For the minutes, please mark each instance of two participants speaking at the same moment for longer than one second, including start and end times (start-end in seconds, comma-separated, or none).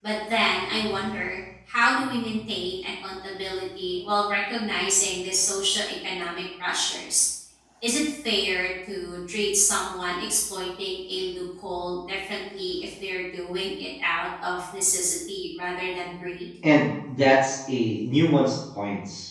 none